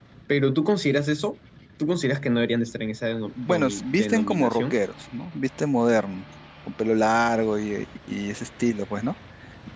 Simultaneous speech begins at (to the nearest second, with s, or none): 3 s